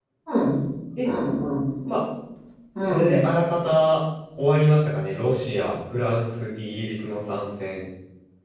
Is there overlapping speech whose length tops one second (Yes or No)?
No